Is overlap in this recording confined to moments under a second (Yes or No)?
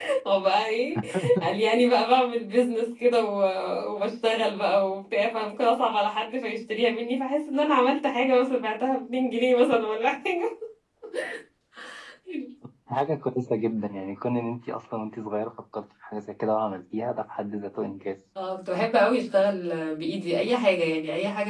Yes